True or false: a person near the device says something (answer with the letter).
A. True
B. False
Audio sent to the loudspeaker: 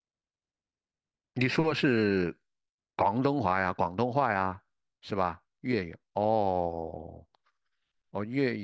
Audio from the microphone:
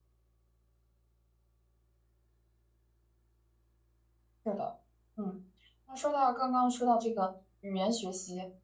A